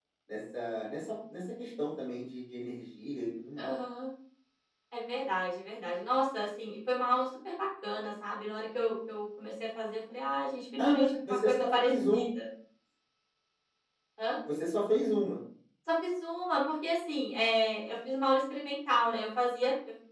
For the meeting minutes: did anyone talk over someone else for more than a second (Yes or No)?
Yes